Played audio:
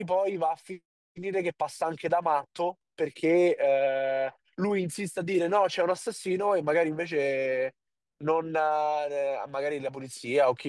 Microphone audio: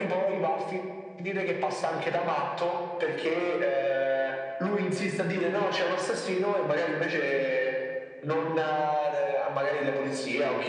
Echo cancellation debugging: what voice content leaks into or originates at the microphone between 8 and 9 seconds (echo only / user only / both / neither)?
echo only